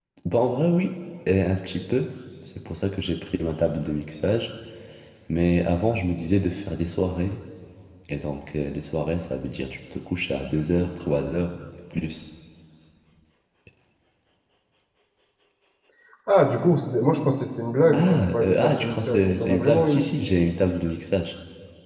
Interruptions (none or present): present